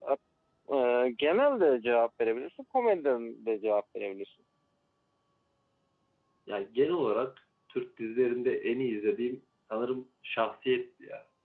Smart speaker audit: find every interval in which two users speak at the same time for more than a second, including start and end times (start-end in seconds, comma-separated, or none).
none